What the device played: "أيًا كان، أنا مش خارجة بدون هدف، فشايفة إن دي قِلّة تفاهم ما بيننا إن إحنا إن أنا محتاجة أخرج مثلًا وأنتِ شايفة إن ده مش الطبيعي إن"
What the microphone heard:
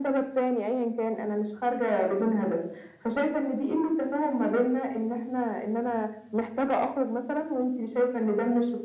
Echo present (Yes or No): Yes